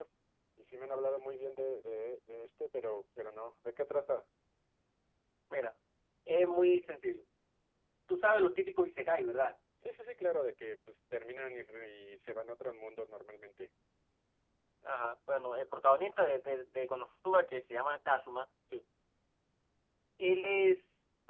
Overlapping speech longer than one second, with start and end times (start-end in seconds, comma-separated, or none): none